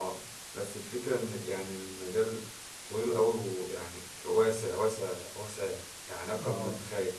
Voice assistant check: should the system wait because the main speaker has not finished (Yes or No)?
No